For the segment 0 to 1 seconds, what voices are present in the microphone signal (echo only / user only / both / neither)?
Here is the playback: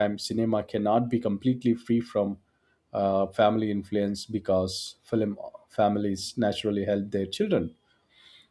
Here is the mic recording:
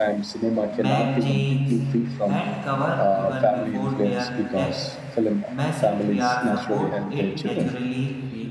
both